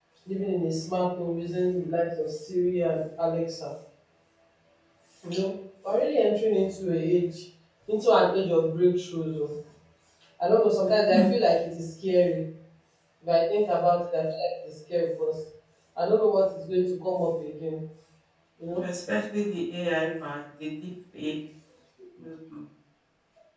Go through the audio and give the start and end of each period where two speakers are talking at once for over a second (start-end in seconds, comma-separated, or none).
none